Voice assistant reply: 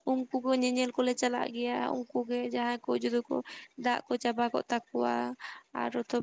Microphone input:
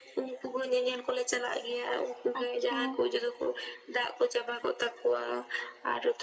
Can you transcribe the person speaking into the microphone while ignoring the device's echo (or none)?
ᱟᱪᱷᱟ